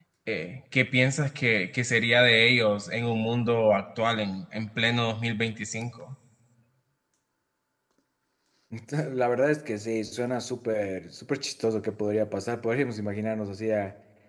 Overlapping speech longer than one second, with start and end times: none

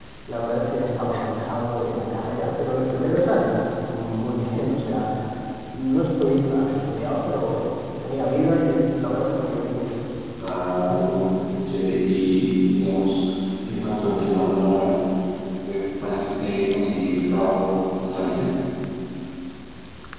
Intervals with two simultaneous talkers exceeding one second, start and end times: none

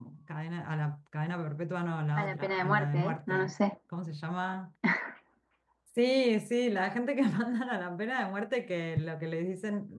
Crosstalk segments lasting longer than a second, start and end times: 2.2-3.5

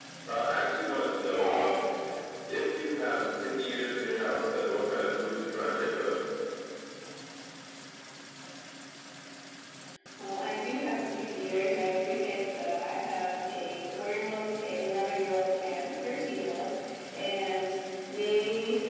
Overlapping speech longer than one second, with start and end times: none

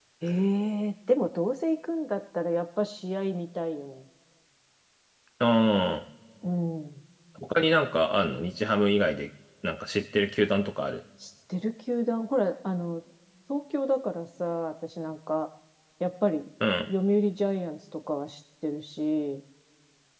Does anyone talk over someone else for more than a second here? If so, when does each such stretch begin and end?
none

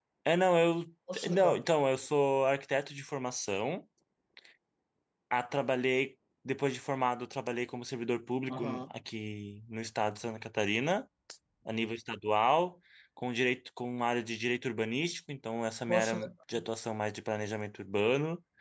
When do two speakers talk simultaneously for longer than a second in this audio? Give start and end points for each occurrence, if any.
none

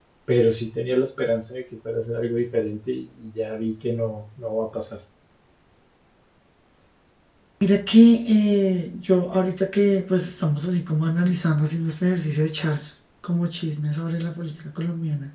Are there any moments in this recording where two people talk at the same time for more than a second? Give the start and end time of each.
none

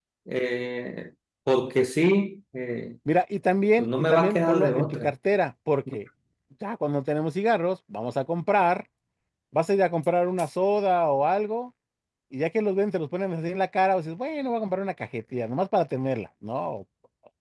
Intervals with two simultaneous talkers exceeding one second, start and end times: 3.8-5.1

